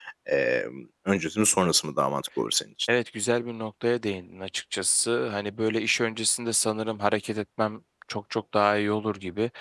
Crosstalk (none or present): none